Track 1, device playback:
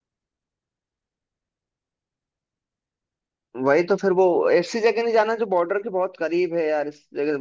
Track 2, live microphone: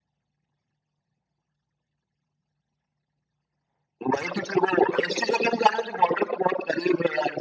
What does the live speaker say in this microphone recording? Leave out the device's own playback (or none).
none